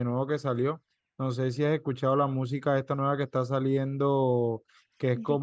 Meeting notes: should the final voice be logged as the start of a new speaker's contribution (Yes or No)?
No